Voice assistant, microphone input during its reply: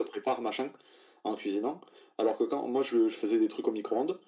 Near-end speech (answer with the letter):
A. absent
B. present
A